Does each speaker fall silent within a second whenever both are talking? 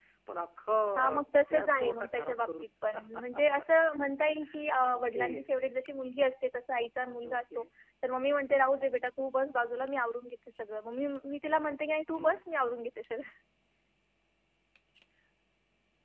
No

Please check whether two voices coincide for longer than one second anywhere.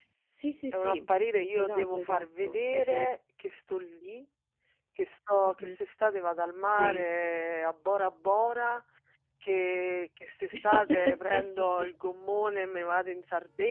Yes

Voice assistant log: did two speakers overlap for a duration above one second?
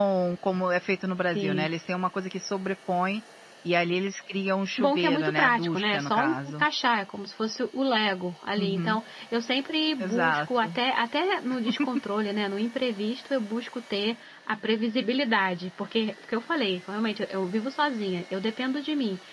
Yes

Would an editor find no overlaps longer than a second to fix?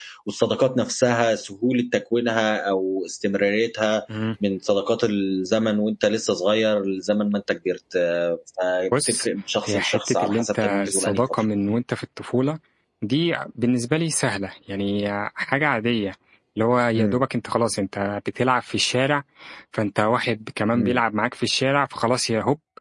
No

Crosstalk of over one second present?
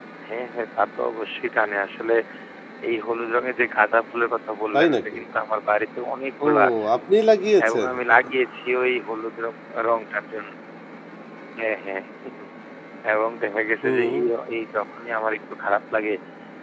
No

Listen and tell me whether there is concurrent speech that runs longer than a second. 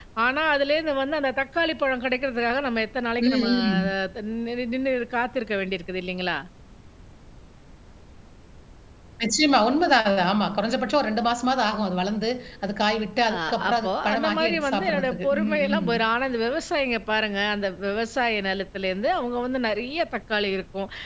Yes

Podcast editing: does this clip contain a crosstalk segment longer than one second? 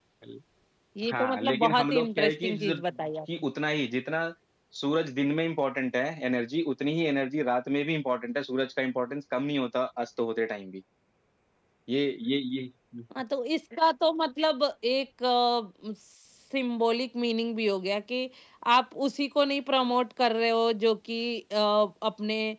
Yes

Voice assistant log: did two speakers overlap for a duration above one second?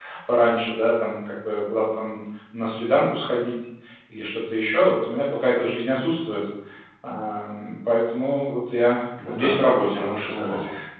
Yes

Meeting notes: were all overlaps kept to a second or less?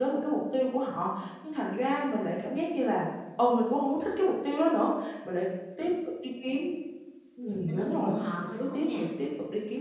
No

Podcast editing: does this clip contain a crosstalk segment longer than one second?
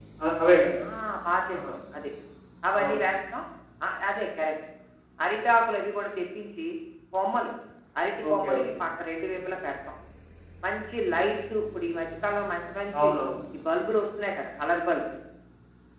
No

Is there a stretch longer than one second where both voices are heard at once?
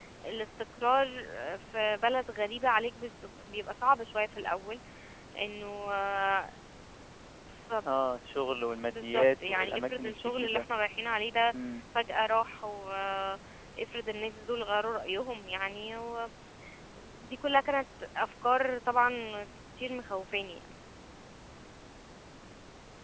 Yes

